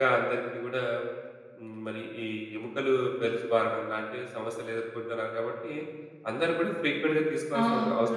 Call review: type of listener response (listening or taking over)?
taking over